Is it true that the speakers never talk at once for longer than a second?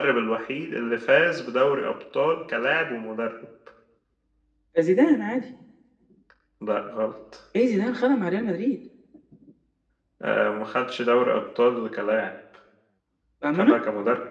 Yes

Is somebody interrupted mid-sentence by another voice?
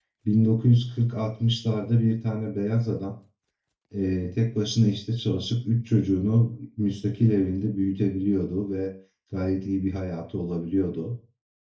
No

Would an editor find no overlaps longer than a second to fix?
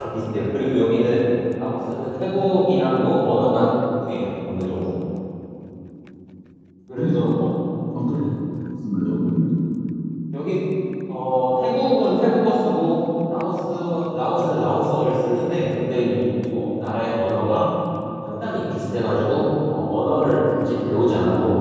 Yes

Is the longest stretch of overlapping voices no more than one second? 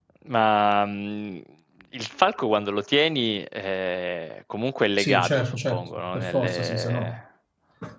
No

